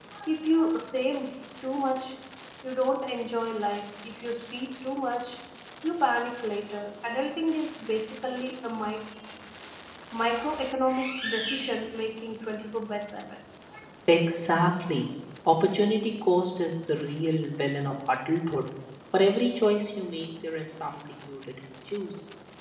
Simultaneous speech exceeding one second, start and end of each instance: none

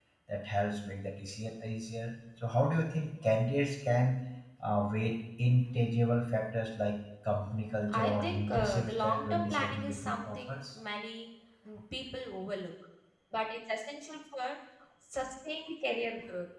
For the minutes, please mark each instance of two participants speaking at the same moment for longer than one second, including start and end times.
7.9-10.6

